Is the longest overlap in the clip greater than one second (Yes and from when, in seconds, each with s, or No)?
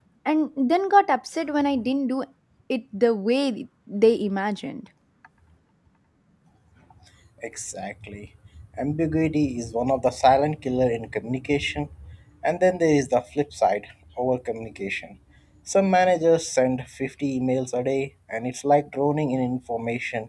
No